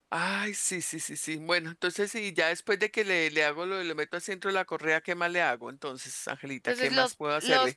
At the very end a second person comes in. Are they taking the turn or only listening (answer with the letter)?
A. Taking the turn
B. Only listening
A